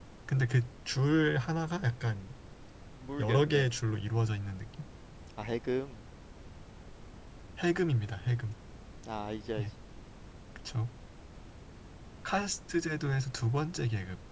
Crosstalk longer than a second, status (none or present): none